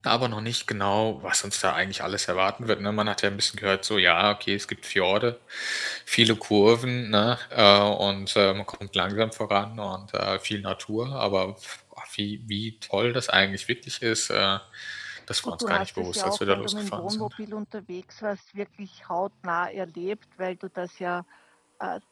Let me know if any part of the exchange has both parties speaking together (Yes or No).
Yes